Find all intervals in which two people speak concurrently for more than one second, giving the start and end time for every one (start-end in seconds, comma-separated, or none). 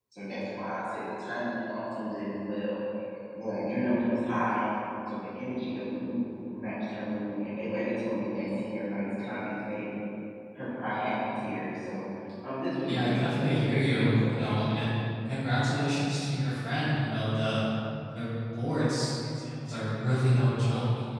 12.8-14.8